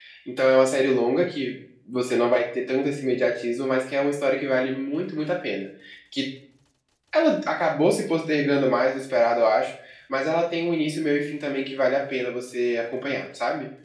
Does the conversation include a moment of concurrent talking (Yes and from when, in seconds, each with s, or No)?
No